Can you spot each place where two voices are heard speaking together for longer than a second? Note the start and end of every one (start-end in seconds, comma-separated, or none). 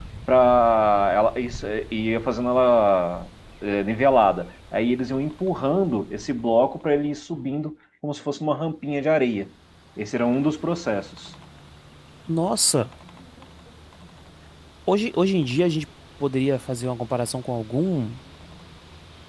none